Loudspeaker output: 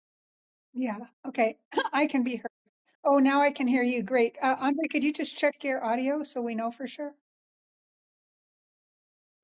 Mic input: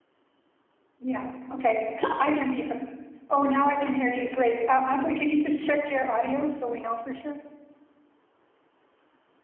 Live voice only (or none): none